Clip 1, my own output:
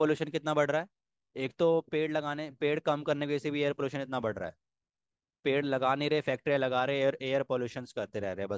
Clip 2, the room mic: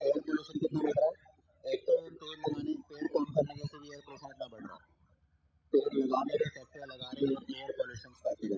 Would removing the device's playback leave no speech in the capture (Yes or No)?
Yes